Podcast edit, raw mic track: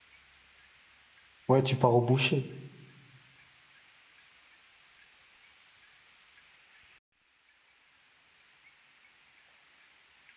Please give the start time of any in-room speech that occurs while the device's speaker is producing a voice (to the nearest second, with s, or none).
1 s